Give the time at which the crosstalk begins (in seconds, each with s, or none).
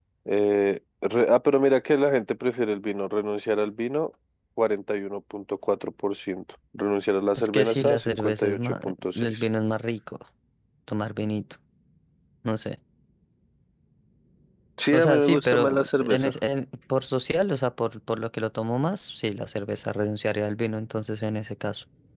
7.3 s